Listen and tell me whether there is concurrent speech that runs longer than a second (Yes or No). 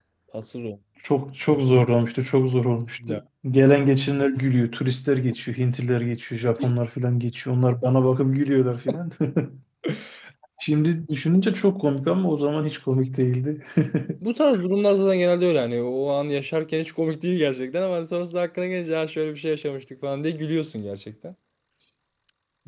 No